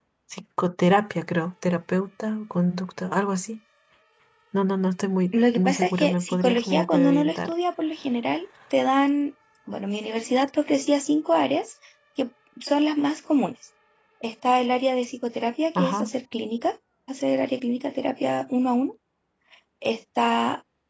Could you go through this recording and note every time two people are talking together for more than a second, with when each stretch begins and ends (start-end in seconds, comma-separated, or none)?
5.5-7.5